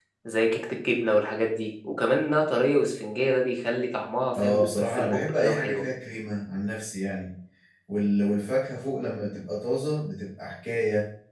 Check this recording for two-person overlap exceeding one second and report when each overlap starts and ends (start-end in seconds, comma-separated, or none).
4.4-5.8